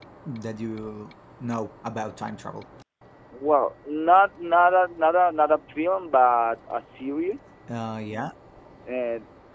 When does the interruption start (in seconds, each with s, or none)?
none